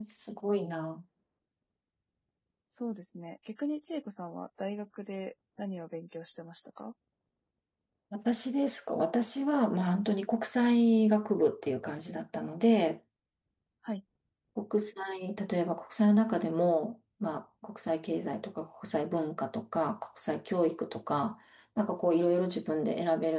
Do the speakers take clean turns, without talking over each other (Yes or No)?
Yes